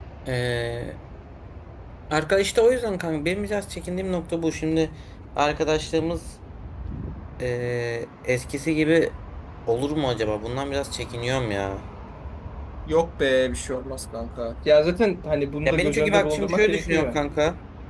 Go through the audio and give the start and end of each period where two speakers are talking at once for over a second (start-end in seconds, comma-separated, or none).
15.7-17.2